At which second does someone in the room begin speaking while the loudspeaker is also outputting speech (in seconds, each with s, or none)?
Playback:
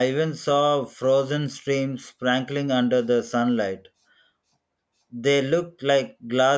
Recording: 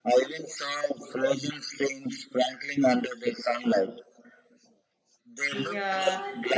5.5 s